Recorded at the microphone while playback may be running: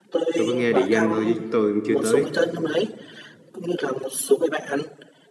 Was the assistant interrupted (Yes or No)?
Yes